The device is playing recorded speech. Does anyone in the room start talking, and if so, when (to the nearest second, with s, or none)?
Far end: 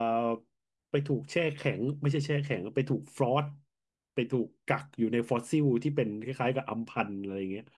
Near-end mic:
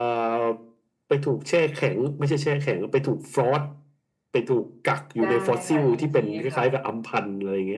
5 s